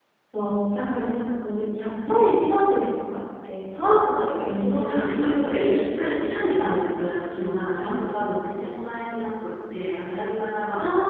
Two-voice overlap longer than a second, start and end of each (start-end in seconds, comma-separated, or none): 4.4-5.7